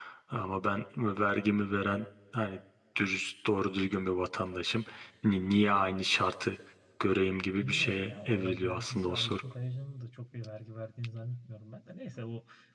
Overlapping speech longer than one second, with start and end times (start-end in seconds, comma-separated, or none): 7.6-9.3